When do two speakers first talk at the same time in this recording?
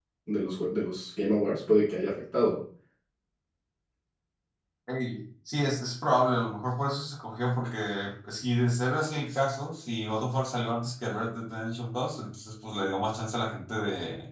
none

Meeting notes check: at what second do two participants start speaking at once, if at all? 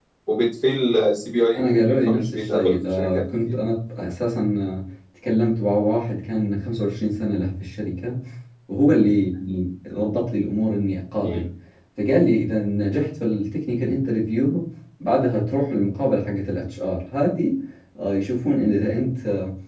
2 s

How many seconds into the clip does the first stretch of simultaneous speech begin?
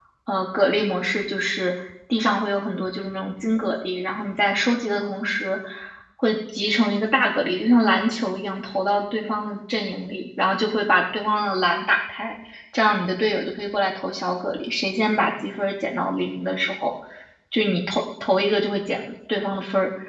none

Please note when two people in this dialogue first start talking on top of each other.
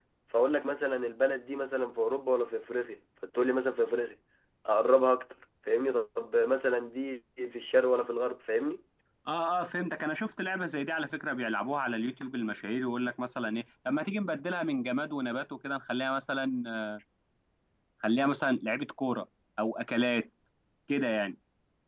none

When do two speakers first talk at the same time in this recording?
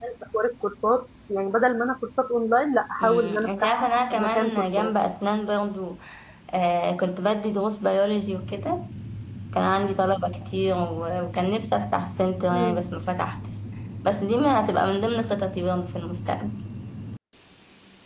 3 s

